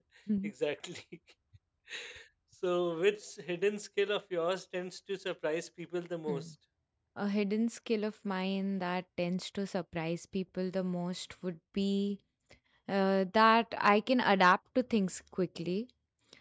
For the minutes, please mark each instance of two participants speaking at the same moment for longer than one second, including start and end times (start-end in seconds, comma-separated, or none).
none